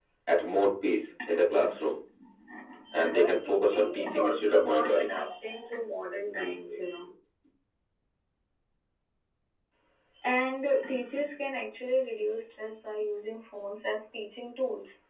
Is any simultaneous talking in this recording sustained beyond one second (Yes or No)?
Yes